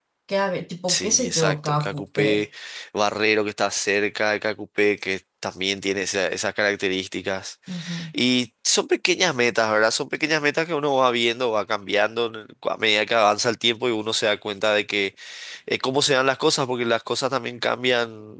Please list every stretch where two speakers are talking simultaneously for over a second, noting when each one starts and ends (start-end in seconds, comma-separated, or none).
0.9-2.2